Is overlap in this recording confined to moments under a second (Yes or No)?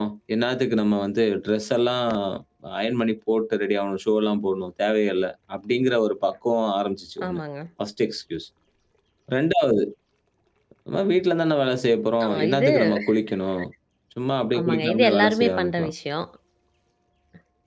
No